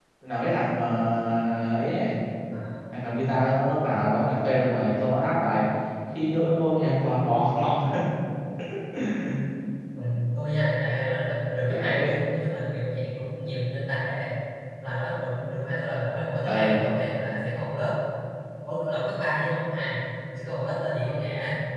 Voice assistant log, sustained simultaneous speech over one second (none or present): none